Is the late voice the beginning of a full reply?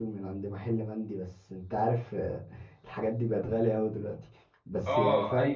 Yes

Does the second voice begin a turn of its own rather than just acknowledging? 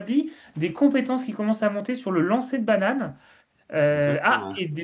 No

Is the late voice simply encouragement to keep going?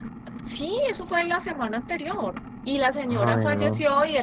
Yes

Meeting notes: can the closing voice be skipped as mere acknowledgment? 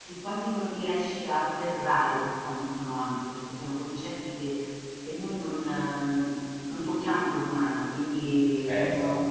Yes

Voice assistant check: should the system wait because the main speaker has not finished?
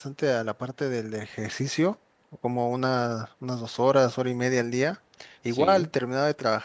Yes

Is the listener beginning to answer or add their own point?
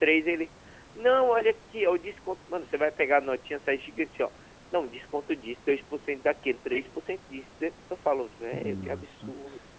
Yes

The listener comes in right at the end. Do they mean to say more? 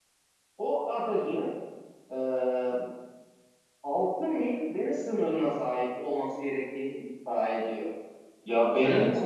No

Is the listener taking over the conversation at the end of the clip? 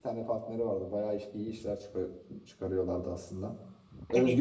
No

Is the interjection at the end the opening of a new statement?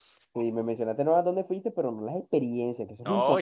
Yes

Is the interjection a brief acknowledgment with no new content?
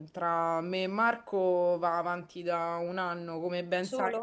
Yes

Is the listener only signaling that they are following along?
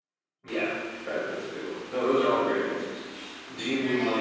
No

